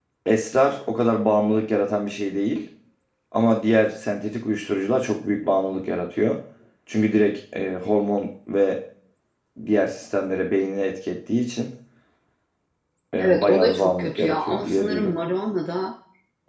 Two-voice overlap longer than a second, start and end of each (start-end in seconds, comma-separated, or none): 13.2-15.2